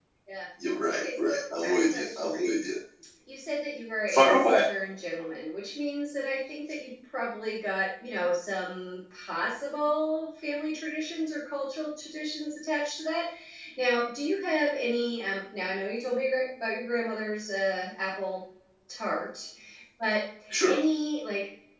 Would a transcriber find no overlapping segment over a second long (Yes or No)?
No